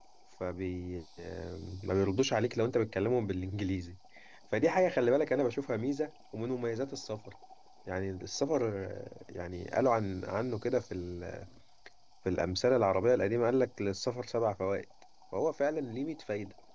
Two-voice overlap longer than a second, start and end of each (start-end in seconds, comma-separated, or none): none